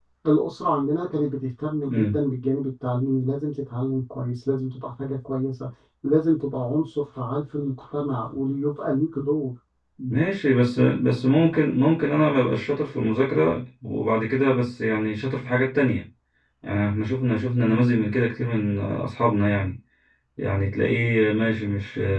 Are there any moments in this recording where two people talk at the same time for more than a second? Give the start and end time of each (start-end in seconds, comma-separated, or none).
none